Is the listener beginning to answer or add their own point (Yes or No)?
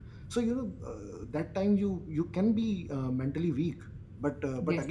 No